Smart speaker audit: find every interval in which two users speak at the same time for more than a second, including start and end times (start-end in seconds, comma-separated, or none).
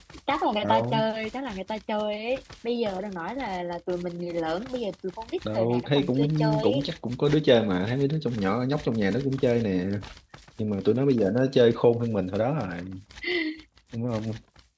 5.5-6.8